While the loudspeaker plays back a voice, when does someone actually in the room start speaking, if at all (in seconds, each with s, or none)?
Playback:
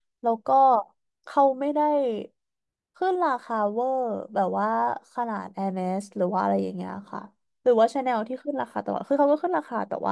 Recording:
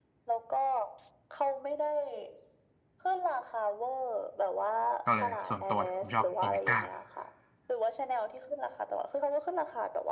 5.0 s